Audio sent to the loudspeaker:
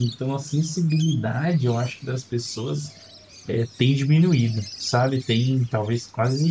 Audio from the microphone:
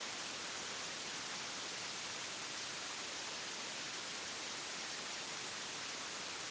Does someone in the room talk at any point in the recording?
No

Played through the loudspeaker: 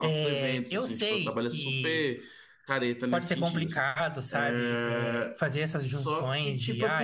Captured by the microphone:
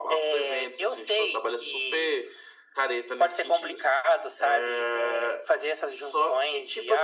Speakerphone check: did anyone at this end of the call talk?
No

